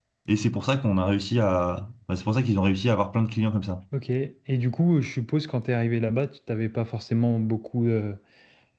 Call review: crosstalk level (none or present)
none